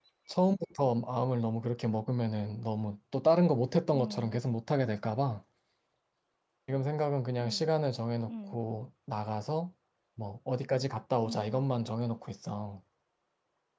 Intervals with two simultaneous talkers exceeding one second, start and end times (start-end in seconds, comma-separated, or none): none